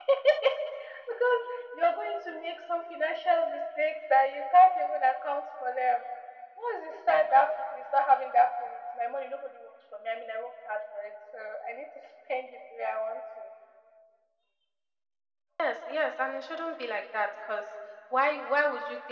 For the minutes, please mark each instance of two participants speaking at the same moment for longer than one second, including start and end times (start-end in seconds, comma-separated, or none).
none